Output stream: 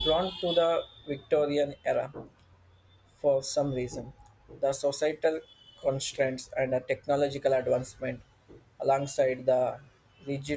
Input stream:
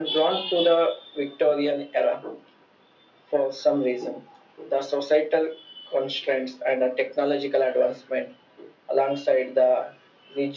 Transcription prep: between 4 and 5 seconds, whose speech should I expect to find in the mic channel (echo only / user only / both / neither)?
echo only